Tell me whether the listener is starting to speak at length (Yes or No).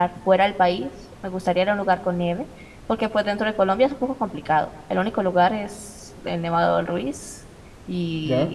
No